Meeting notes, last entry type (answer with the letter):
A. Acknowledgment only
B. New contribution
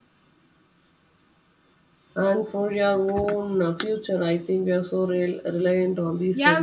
B